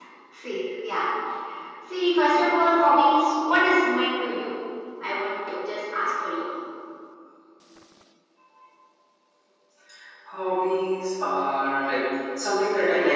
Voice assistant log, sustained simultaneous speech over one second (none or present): none